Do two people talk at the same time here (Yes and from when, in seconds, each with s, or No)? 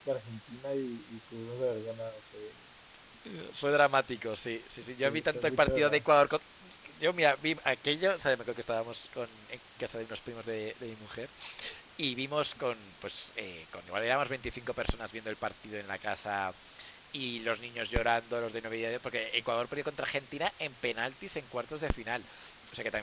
Yes, from 4.8 s